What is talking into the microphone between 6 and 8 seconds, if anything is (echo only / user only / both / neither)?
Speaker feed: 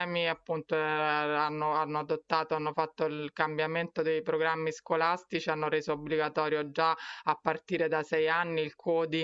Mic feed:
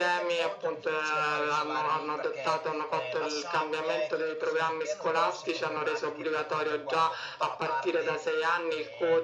both